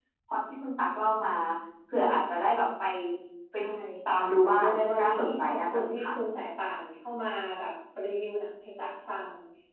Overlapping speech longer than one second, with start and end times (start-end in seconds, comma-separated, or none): 4.6-6.1